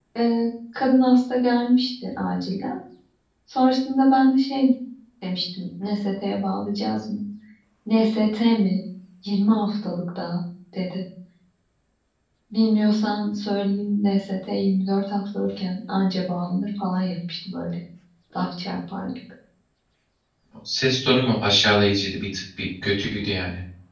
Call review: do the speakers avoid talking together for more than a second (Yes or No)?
Yes